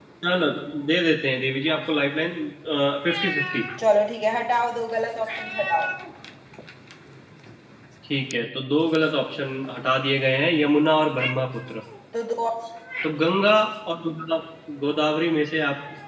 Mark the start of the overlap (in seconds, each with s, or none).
none